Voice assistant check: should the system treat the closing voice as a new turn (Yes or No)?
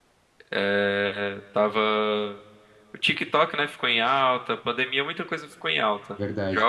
No